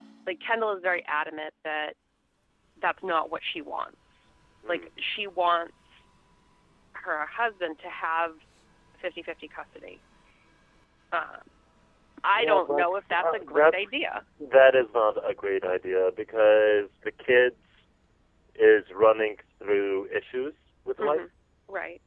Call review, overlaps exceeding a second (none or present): present